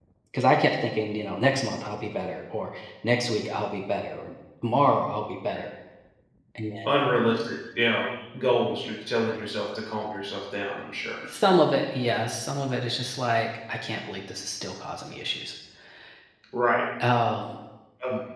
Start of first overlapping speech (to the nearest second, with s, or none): none